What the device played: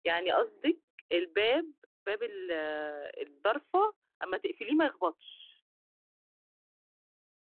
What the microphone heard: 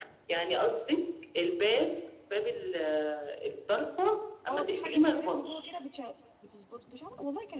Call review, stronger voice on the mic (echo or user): echo